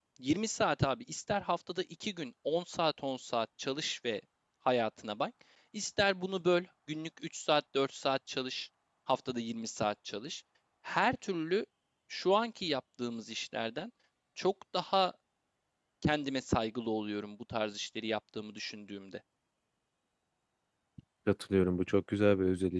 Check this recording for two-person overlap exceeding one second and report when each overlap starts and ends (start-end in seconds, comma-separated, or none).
none